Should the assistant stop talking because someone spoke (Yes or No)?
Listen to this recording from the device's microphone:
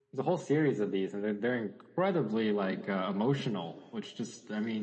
No